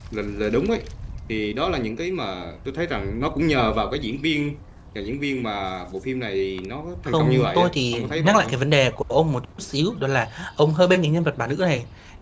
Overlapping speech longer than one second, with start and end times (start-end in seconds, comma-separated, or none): 7.1-8.6